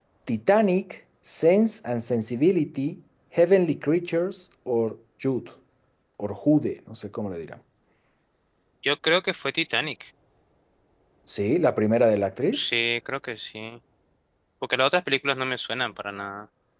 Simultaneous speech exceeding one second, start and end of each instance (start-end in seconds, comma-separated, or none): none